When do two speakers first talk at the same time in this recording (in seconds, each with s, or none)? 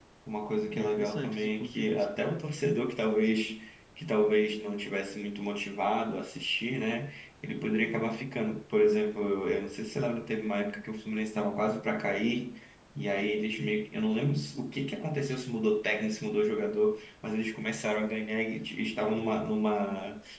0.7 s